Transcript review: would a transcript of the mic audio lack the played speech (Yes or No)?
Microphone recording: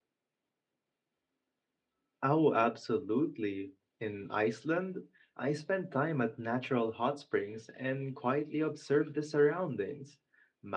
Yes